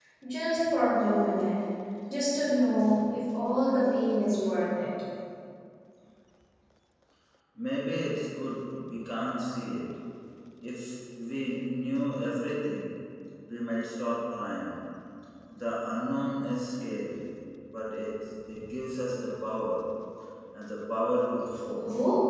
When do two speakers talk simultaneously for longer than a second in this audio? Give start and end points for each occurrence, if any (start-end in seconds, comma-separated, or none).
none